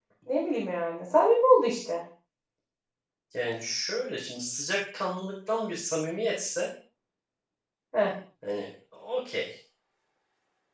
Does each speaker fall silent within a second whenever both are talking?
Yes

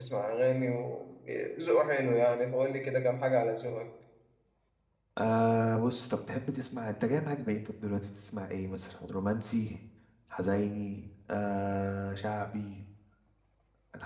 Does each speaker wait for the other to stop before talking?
Yes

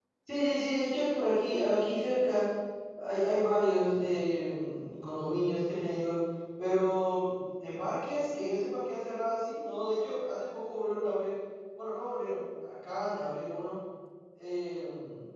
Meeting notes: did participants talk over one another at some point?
No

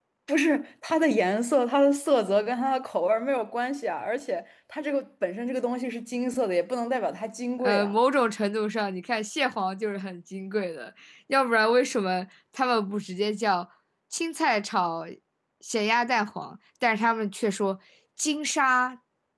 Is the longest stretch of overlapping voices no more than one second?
Yes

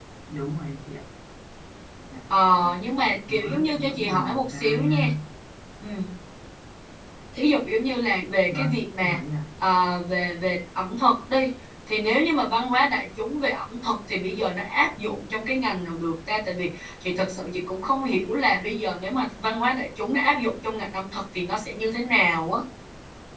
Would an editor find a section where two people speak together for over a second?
Yes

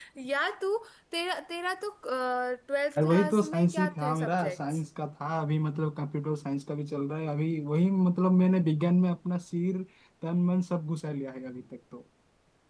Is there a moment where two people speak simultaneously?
Yes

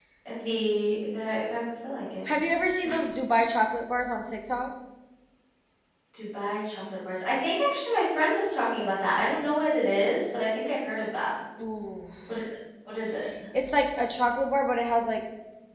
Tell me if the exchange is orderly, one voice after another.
Yes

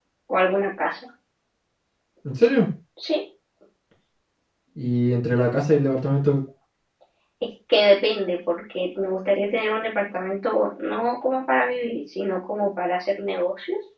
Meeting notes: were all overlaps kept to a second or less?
Yes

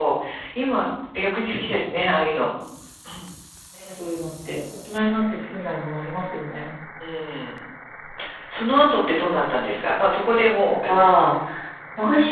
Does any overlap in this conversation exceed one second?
No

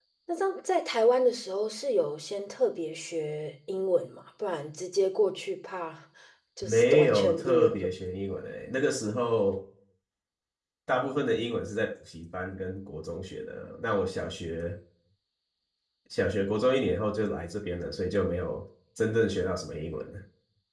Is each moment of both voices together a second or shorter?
No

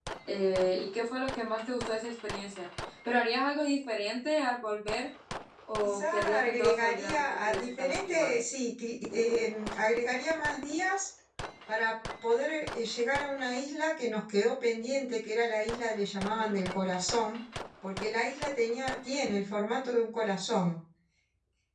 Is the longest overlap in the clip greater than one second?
Yes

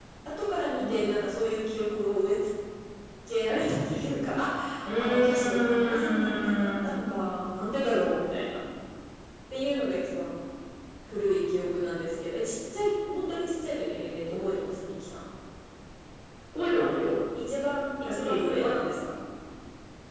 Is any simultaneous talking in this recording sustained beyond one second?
Yes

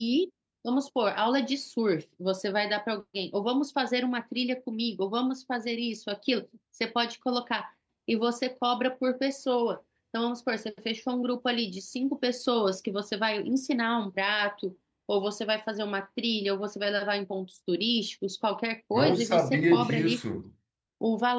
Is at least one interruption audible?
Yes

